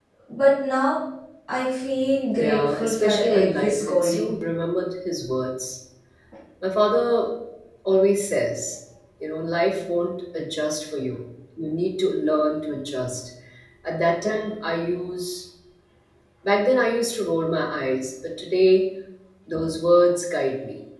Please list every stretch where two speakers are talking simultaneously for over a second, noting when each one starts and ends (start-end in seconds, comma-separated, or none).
2.4-4.3